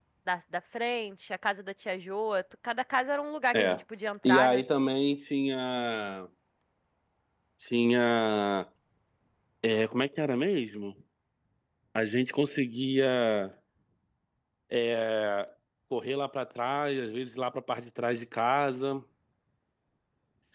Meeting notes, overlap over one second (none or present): none